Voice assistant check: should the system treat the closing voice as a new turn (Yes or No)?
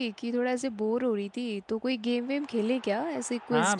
Yes